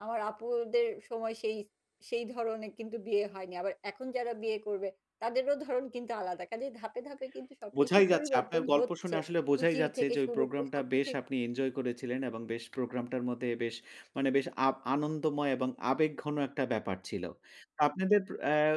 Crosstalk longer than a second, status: present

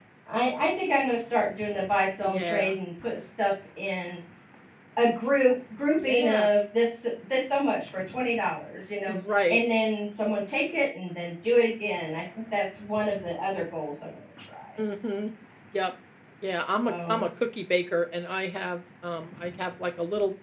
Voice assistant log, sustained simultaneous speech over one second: none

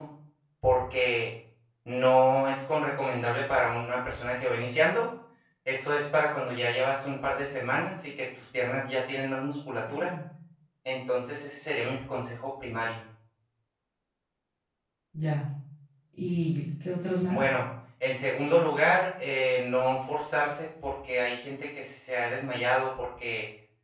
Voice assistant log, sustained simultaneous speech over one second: none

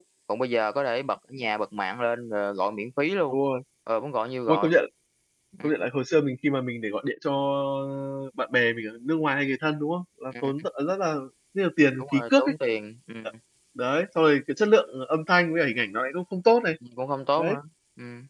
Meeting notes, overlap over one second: none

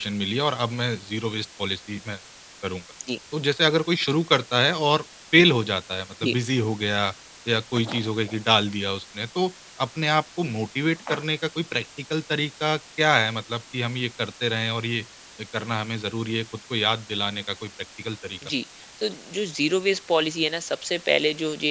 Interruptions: none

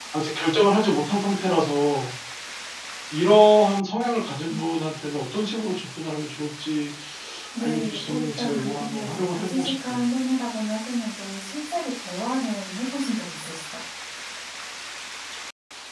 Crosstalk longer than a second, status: present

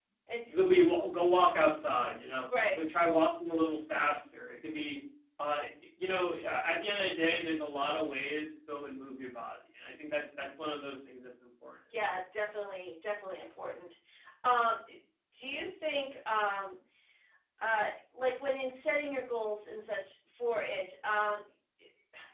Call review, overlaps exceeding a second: none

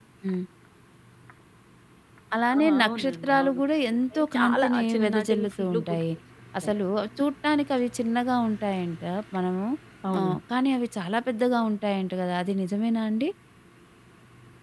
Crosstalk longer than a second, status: present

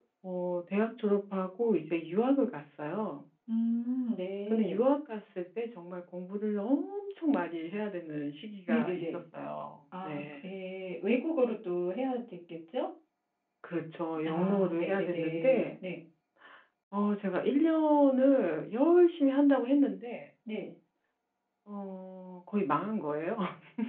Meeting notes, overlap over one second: present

